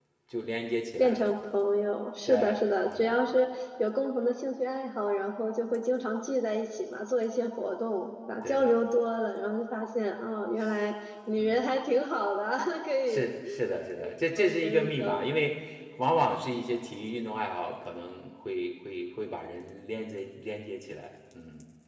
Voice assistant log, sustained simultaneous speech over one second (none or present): present